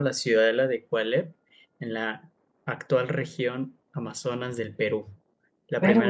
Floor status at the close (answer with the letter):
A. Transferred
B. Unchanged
B